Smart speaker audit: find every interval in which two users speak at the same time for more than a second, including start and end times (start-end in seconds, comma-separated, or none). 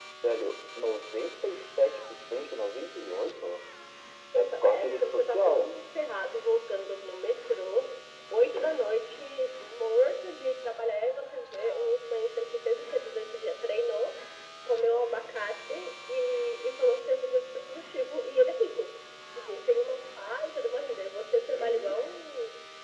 4.3-5.7